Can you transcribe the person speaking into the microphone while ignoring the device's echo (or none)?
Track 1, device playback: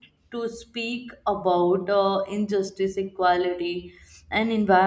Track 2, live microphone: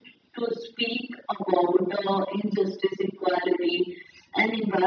none